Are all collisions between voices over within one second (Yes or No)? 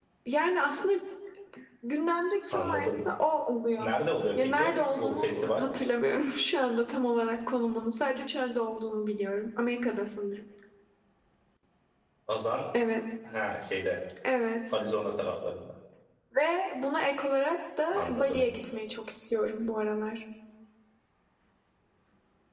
No